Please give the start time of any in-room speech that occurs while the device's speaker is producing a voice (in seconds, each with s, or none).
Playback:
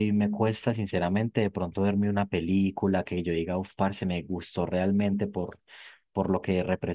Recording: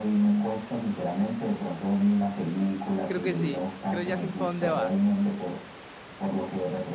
3.1 s